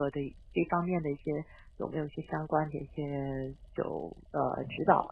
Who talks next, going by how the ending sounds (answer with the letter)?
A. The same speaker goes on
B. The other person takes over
B